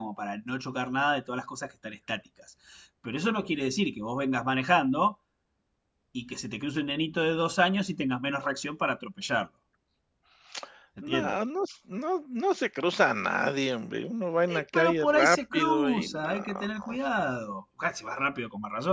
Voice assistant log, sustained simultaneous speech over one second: present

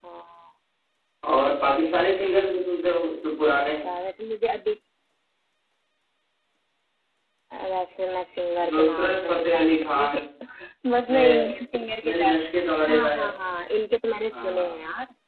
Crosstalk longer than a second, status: present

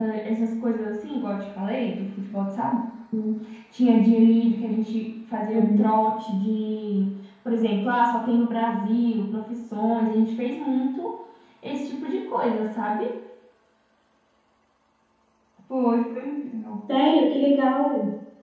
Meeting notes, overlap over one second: none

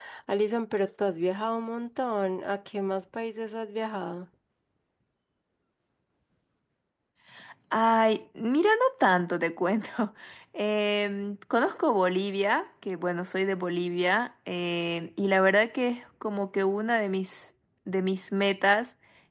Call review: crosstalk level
none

